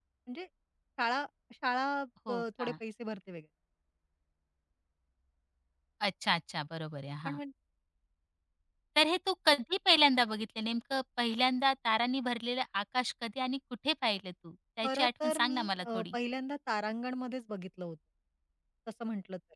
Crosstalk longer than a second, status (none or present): present